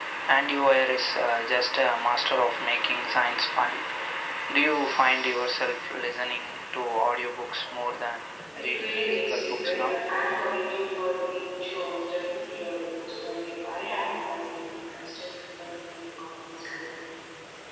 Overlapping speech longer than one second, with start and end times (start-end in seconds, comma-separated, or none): 8.7-9.9